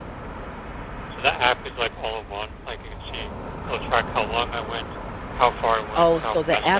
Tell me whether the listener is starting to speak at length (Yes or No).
Yes